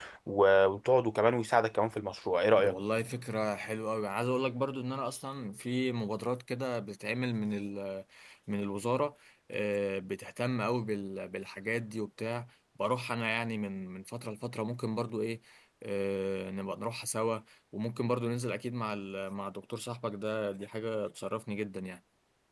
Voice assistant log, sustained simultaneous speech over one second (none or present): none